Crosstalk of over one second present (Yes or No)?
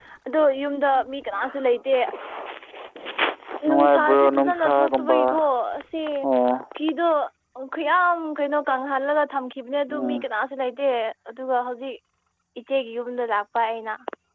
Yes